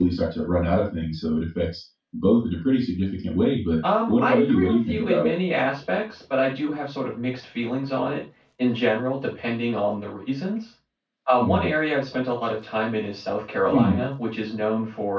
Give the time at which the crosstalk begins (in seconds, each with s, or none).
4.1 s